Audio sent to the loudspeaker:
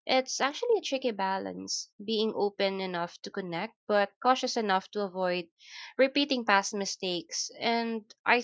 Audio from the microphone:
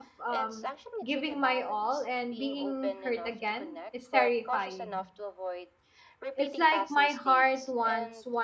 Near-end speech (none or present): present